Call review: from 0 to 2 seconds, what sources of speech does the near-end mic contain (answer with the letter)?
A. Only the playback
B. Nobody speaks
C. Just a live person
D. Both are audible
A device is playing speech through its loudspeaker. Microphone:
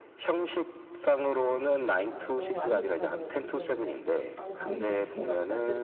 A